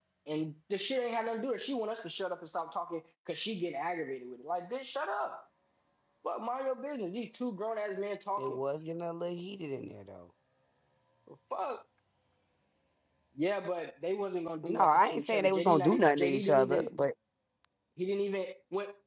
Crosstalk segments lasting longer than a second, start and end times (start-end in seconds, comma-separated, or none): 14.6-16.9